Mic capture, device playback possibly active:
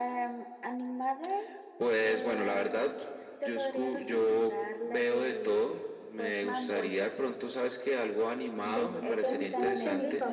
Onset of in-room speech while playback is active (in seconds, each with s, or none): 8.6 s